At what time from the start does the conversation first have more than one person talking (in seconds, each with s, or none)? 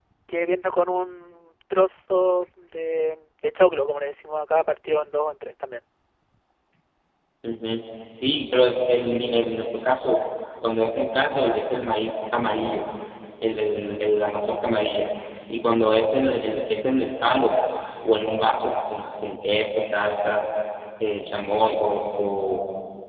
none